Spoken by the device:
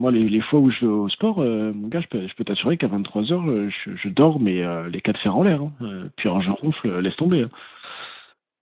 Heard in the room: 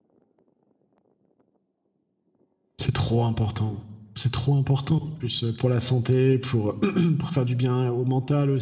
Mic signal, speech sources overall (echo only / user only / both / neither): user only